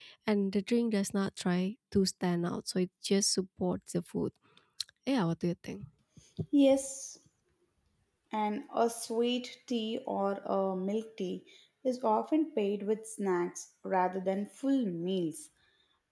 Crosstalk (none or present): none